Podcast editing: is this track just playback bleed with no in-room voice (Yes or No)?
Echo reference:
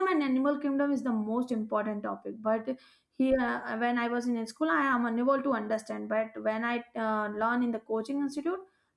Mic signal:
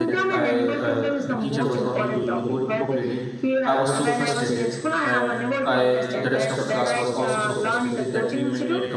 No